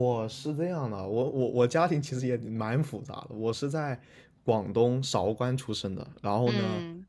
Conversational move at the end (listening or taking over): listening